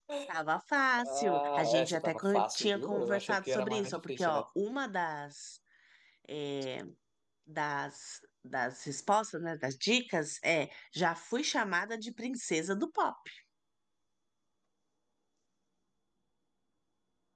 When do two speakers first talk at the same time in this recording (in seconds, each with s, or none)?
1.1 s